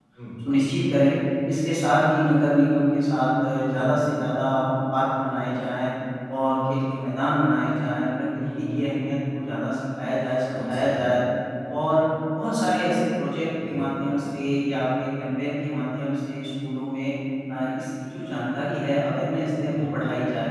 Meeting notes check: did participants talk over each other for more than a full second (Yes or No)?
No